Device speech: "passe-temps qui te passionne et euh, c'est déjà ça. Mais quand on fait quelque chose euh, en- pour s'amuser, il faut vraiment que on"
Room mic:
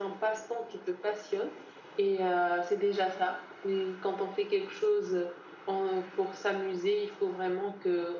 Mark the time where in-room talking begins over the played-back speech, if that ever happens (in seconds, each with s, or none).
none